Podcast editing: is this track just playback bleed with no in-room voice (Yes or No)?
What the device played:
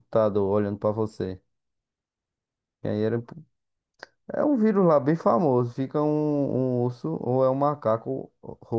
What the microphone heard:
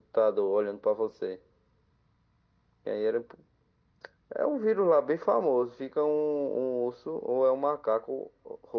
Yes